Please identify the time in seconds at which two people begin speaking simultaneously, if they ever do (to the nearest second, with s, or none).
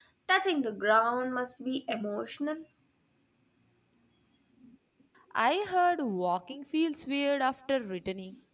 none